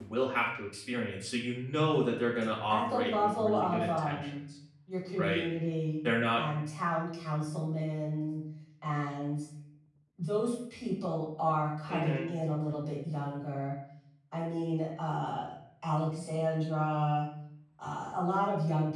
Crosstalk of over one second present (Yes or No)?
Yes